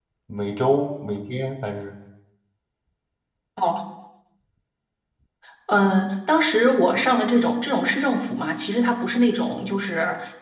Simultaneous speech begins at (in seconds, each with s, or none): none